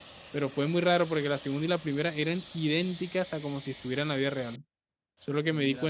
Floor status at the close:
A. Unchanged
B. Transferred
A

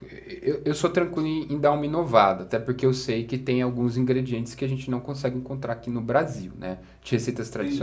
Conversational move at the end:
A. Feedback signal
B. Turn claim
B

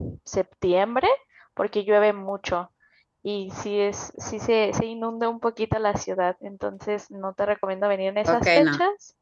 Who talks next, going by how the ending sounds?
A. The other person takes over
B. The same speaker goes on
A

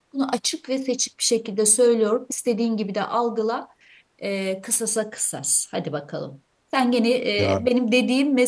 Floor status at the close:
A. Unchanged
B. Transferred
A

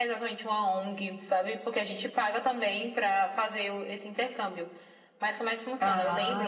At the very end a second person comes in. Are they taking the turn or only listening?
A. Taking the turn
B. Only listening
B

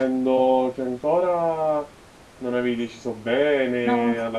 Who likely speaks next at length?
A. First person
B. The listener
A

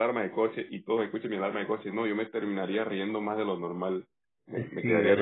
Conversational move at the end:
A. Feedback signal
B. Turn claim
B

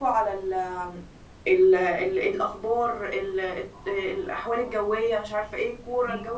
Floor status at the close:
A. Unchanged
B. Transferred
A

